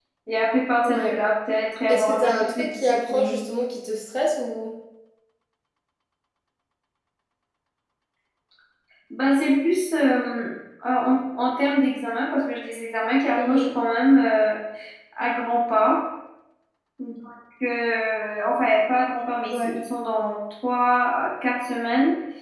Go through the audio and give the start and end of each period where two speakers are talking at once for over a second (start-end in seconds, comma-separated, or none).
1.9-3.4